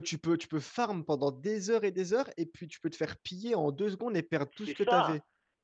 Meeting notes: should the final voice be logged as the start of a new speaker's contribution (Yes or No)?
Yes